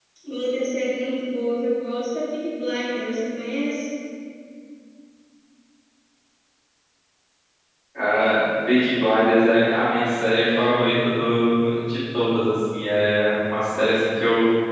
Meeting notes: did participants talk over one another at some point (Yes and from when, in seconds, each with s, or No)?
No